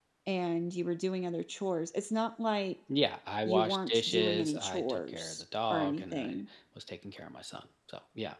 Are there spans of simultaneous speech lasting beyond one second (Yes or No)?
Yes